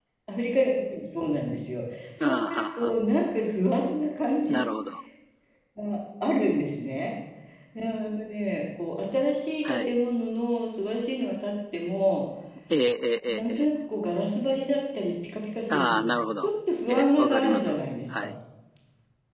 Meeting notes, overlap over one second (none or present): present